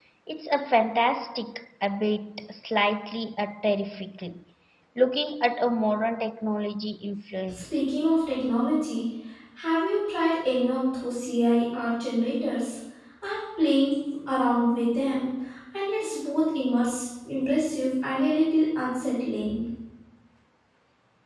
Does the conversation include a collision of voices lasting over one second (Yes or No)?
No